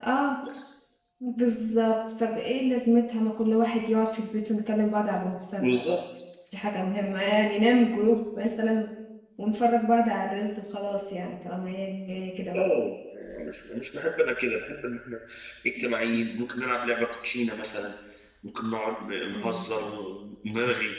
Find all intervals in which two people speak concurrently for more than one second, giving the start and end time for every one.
none

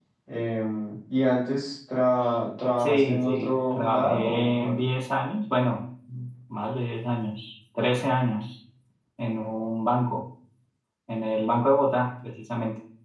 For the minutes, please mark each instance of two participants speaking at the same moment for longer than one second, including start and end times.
2.8-4.8

